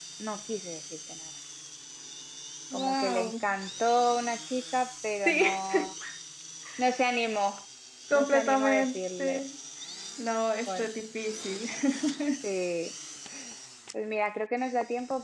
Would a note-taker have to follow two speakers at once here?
Yes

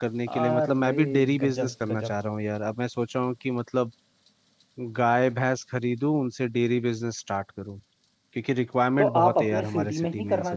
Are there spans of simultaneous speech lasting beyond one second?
Yes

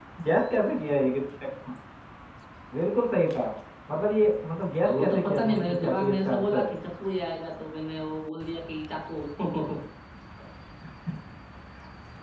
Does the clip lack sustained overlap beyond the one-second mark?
No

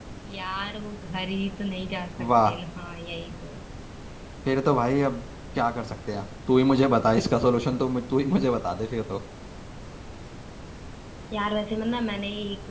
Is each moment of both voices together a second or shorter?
Yes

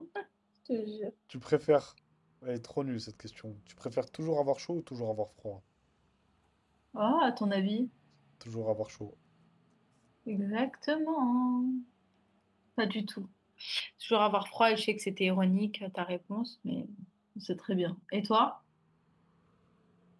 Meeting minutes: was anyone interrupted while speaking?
No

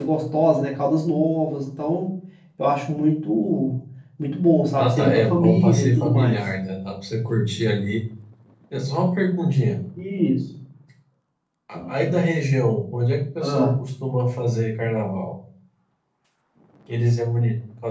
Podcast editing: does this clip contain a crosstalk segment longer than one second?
Yes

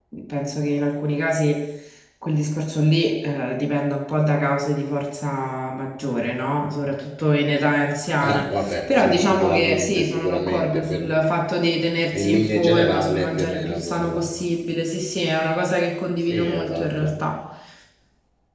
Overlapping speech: Yes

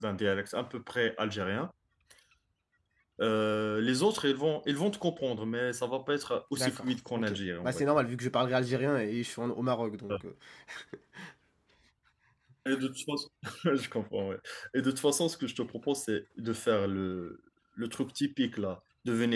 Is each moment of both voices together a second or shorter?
No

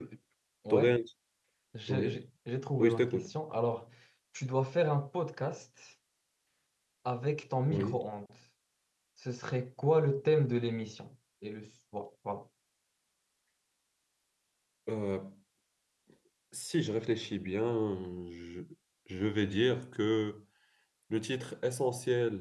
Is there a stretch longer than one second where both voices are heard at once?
No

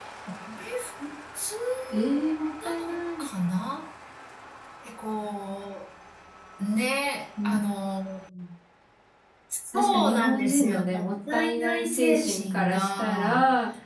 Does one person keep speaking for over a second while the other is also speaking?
Yes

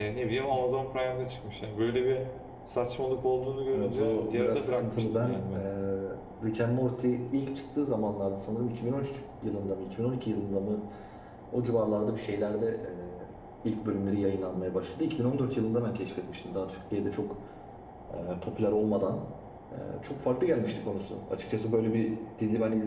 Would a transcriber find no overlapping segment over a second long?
No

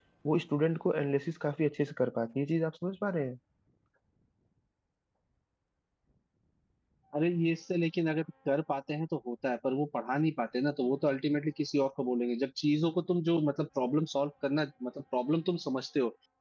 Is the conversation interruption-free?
Yes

